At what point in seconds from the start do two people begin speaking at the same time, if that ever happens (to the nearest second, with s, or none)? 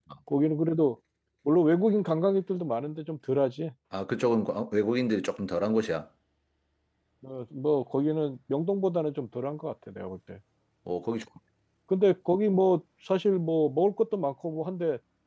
none